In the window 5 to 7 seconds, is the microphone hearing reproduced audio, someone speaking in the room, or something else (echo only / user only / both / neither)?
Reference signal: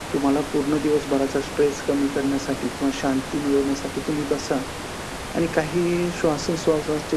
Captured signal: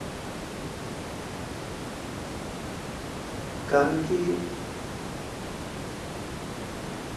neither